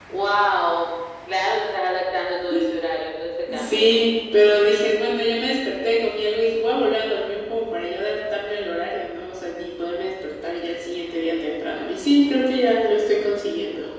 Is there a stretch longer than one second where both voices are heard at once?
No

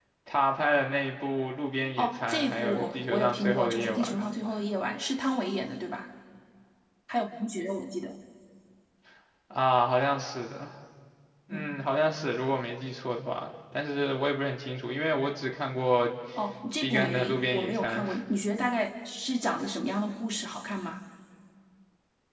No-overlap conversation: No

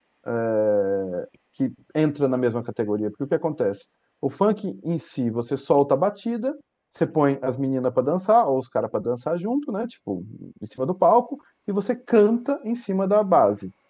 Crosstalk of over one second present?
No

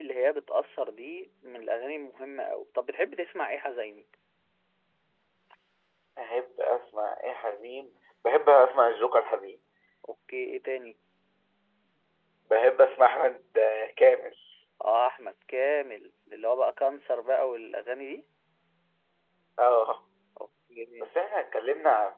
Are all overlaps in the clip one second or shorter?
Yes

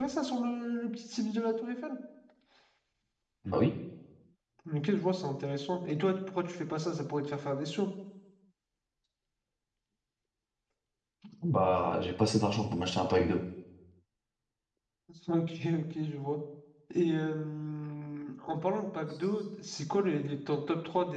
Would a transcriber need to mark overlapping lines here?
No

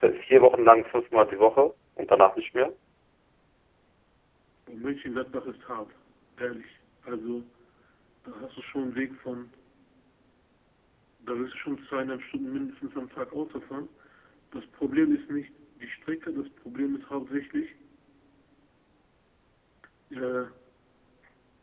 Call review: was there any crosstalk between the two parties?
No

